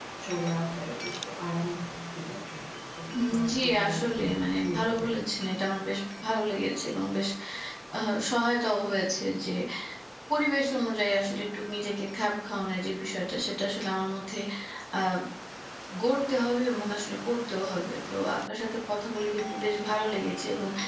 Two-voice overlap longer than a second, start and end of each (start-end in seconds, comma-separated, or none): 3.3-5.1